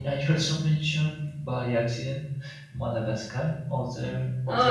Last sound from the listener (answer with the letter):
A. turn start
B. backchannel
B